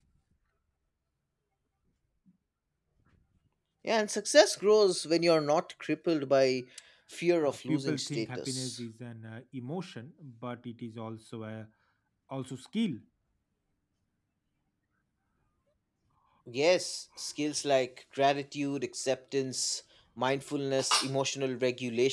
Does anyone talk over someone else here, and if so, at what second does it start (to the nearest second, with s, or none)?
7 s